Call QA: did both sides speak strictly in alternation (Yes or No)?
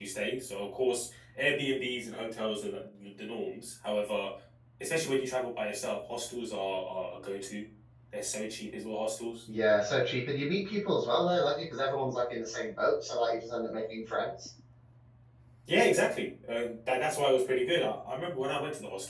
Yes